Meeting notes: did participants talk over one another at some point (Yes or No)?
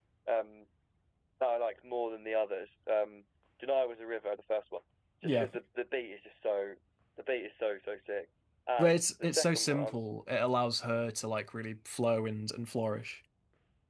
Yes